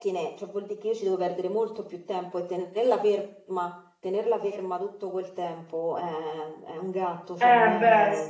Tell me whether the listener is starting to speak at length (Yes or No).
Yes